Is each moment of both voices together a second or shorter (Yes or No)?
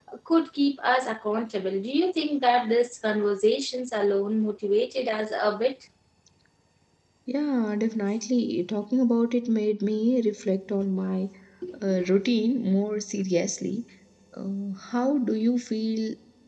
Yes